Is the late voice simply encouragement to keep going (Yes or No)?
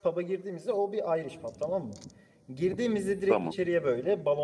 Yes